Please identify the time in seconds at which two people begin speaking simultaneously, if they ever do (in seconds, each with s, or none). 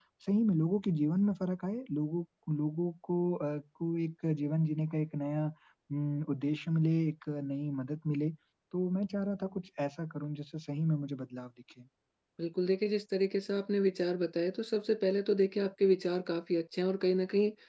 none